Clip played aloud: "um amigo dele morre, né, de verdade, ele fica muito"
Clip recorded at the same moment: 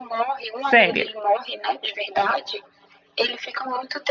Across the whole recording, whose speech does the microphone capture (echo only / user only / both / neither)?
both